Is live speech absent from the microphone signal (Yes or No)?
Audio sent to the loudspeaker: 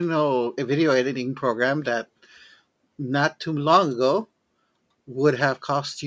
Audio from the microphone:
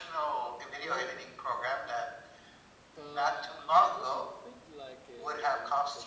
No